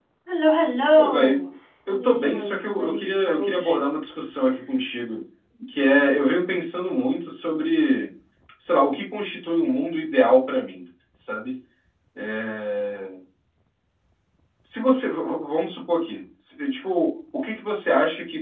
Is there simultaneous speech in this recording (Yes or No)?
Yes